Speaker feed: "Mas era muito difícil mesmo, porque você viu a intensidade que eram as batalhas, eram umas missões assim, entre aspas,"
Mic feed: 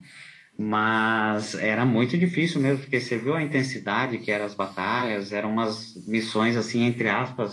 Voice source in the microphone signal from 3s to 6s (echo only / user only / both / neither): echo only